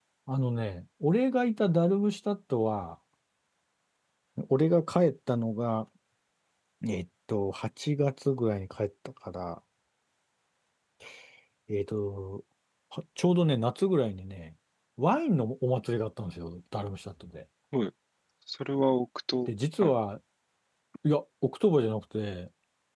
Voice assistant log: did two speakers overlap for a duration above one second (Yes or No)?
No